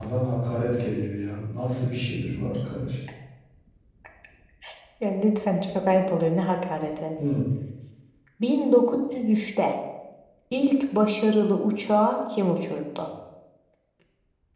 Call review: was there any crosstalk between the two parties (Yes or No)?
No